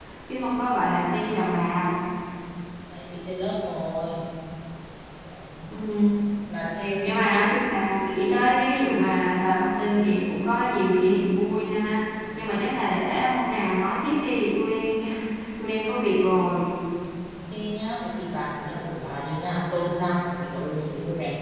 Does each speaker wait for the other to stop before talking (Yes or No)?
Yes